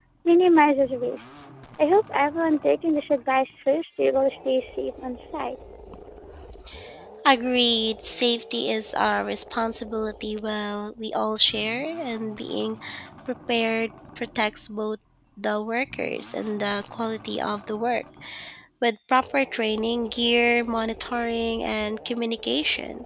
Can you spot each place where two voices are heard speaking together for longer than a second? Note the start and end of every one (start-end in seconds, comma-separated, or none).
none